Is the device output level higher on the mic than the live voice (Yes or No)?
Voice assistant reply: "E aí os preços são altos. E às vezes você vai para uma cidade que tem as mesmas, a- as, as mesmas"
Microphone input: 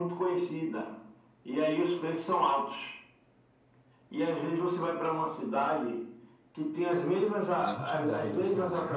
Yes